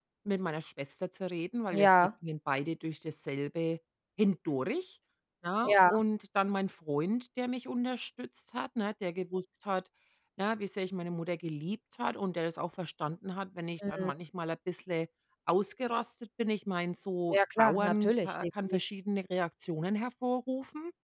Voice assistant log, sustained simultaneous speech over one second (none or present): present